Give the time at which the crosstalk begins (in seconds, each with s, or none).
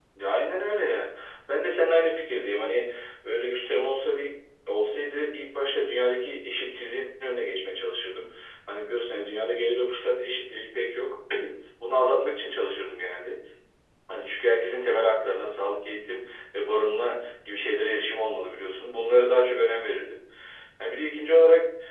none